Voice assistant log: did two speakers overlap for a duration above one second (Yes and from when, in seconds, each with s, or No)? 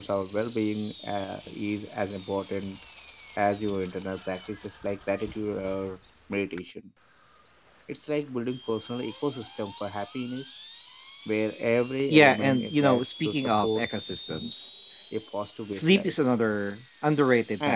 Yes, from 12.1 s